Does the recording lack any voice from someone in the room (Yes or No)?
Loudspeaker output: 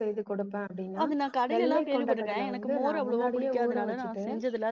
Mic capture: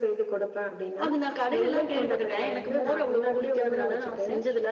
Yes